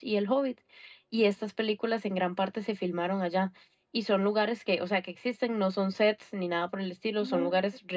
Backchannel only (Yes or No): Yes